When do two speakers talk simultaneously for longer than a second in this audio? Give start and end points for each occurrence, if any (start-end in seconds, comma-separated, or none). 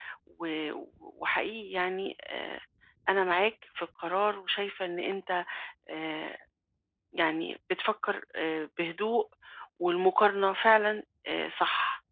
none